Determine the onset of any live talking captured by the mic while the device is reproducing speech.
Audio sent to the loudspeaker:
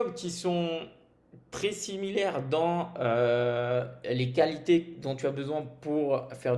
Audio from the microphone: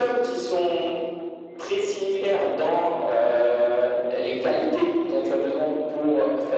none

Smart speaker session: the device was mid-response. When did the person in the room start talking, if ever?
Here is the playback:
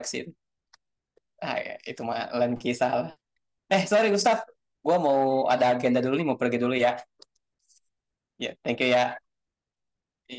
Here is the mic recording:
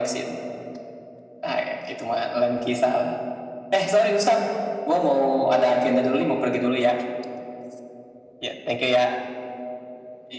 none

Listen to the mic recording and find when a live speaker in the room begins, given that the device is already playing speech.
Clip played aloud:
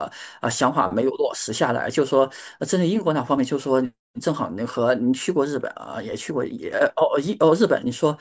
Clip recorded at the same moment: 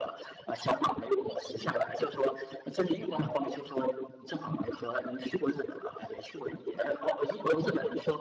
none

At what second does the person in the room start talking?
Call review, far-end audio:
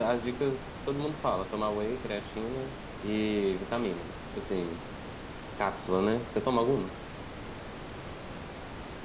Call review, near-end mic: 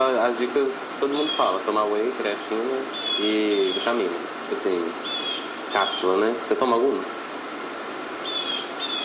none

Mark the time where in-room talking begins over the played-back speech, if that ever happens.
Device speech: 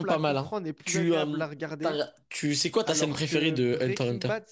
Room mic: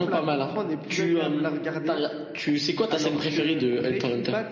none

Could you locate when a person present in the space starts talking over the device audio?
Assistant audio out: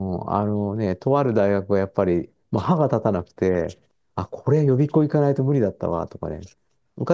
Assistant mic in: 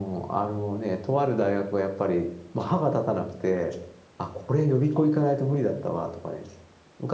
none

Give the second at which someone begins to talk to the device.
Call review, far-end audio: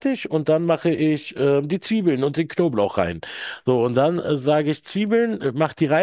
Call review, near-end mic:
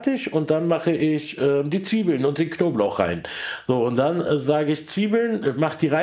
none

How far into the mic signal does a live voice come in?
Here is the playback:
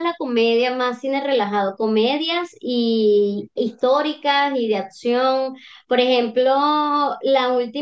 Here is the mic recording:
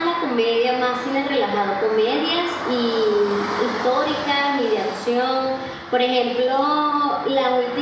none

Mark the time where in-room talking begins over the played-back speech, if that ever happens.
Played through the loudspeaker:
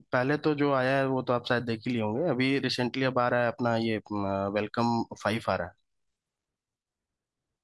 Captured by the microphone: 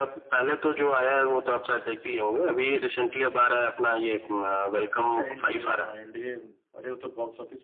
5.1 s

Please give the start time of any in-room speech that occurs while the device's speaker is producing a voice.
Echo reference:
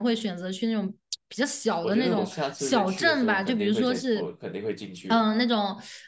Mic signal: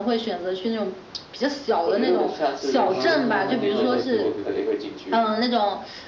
2.8 s

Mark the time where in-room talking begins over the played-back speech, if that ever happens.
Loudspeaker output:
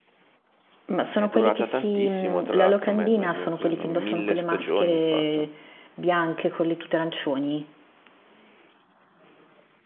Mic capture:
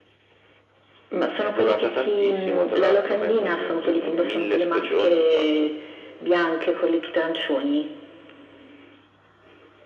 none

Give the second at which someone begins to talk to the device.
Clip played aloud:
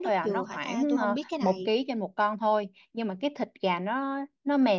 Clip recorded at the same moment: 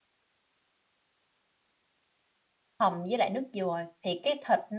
2.8 s

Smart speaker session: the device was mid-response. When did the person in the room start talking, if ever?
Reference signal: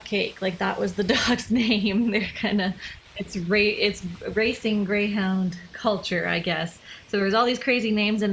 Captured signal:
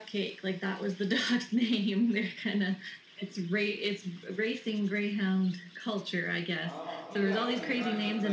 6.6 s

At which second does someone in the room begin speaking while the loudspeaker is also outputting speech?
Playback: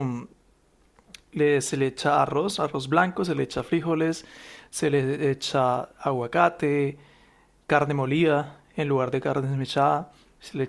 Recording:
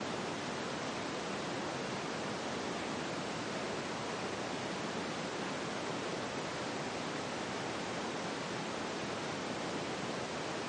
none

